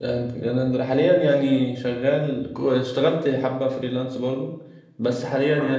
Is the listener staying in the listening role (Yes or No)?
Yes